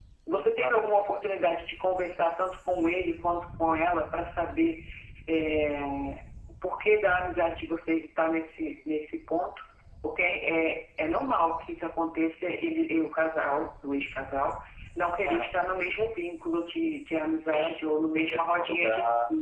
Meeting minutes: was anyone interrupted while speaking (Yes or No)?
Yes